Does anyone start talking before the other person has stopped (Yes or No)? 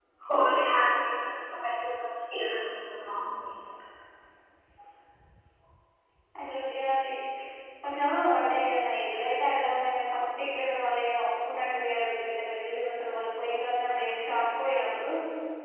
No